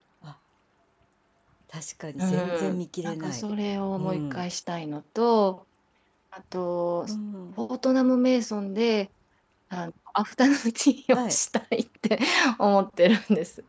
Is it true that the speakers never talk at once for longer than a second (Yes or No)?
No